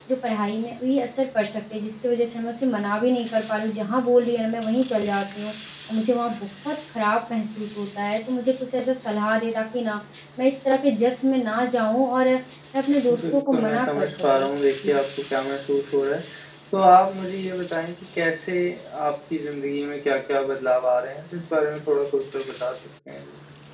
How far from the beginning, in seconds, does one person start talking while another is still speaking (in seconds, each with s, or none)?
13.1 s